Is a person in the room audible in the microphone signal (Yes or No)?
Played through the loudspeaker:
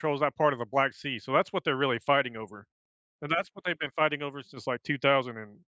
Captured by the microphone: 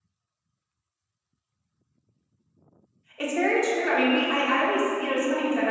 Yes